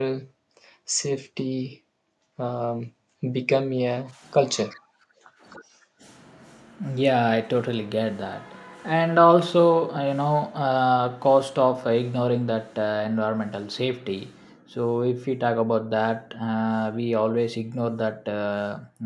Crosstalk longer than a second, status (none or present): none